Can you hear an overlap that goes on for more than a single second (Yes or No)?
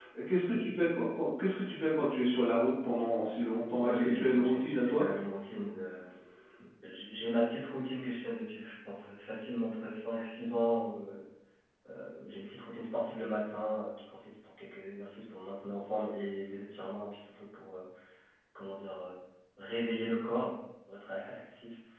Yes